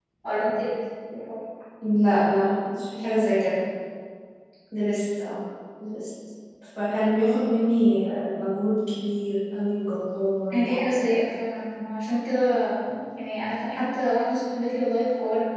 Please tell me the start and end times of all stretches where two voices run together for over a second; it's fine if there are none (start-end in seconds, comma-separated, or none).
none